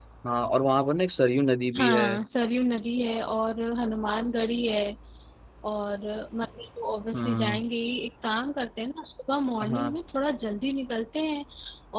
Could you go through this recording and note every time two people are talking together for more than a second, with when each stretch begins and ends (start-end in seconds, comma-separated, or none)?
none